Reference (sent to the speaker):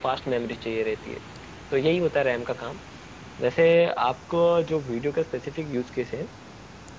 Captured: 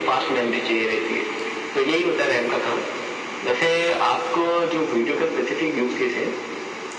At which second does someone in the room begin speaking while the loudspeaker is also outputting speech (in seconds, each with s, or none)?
none